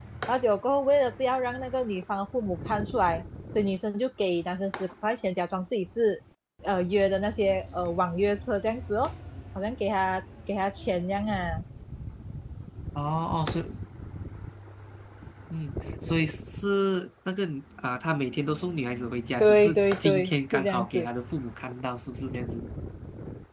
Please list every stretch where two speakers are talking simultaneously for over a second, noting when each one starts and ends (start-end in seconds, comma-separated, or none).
19.4-21.1